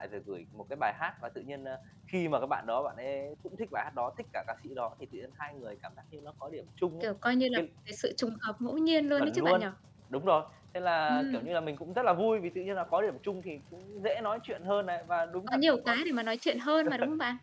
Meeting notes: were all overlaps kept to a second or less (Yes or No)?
Yes